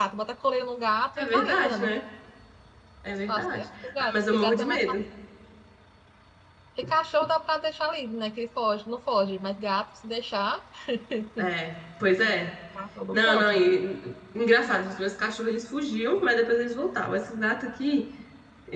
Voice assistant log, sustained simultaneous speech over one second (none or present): present